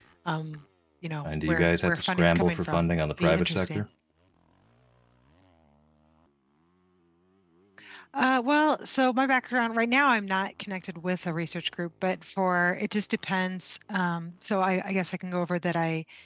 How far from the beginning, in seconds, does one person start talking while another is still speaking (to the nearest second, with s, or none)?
1 s